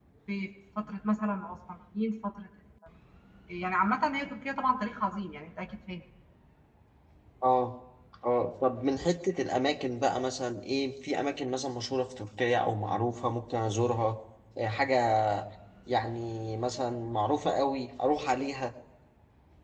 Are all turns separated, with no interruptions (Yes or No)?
Yes